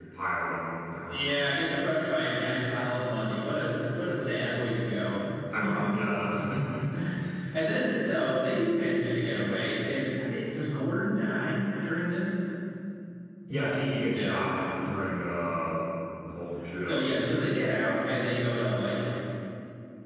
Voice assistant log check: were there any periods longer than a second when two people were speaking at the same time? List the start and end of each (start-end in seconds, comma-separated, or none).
none